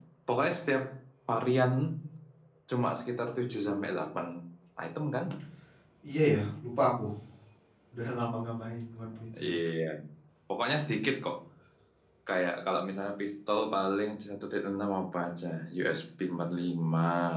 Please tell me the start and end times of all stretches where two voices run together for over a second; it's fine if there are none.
none

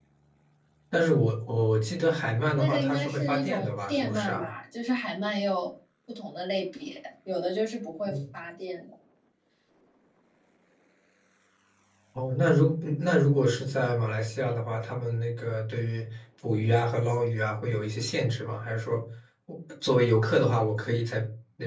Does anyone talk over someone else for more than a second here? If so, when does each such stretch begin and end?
2.5-4.5

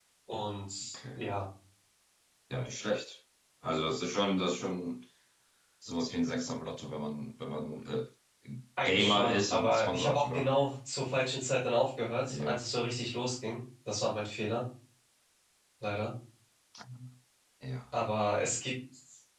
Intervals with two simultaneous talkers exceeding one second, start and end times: 8.8-10.5

